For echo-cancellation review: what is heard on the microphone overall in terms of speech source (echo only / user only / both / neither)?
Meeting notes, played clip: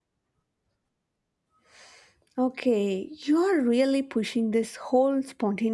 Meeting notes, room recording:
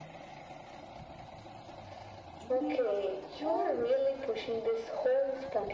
both